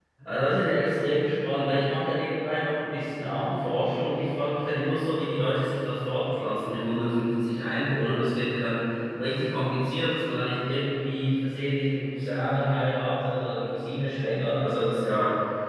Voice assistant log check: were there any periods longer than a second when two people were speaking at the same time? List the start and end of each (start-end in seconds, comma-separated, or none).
none